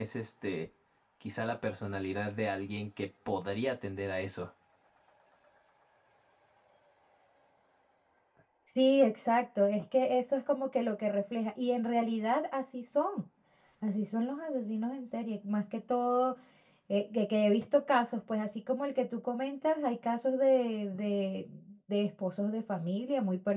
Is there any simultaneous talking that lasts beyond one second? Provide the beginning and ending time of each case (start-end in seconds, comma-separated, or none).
none